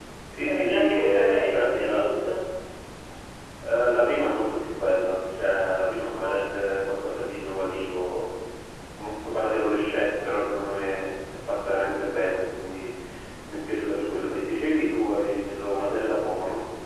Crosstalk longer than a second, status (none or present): present